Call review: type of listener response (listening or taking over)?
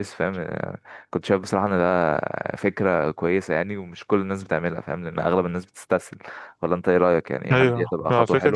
taking over